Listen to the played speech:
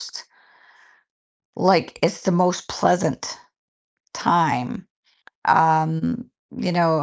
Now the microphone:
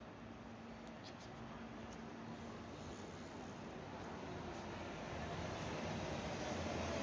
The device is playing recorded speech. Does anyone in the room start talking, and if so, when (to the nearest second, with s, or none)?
none